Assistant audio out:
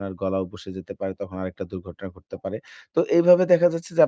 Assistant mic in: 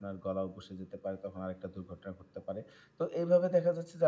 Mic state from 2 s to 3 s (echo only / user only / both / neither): echo only